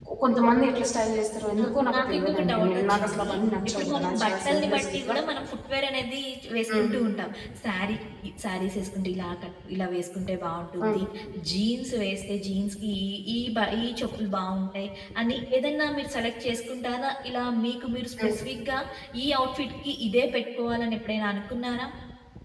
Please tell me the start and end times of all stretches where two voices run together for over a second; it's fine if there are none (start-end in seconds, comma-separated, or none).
1.6-3.3, 3.7-5.2